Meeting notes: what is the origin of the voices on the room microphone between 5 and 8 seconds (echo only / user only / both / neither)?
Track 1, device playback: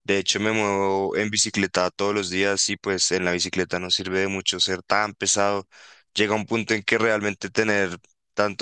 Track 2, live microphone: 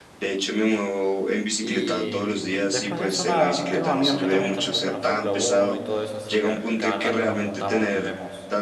both